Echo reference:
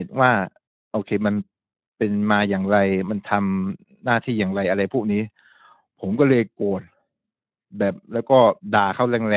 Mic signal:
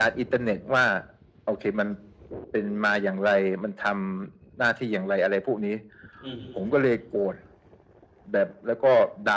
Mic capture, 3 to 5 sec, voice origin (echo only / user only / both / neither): echo only